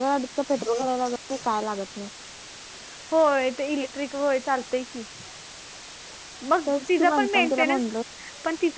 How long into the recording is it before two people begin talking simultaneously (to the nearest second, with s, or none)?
7 s